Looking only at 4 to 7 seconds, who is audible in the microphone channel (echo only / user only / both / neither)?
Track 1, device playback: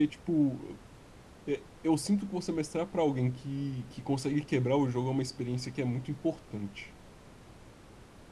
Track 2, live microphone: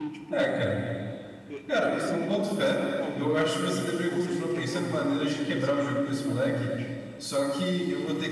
both